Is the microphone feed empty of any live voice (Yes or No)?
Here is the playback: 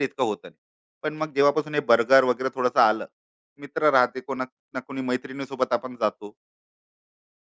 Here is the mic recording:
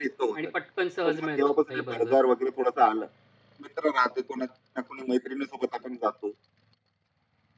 No